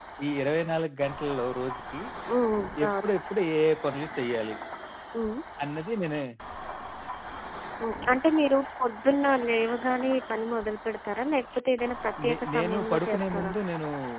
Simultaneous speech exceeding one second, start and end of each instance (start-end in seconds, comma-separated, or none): 12.3-13.5